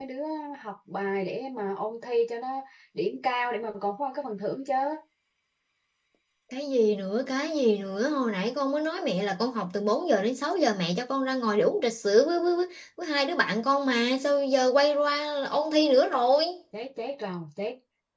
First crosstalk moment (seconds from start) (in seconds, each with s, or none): none